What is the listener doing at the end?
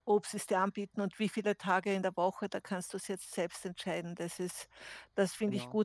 listening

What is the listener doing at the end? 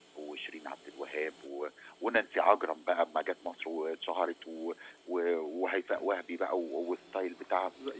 taking over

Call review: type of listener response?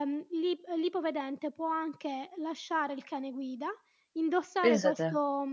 listening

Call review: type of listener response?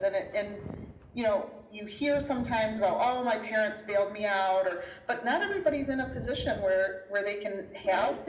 listening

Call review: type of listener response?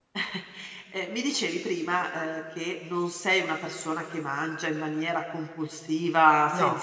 listening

